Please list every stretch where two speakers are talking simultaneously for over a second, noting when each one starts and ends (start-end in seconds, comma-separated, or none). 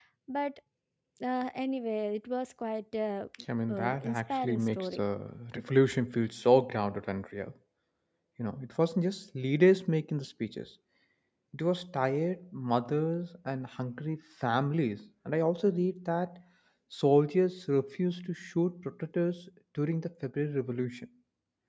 3.7-5.0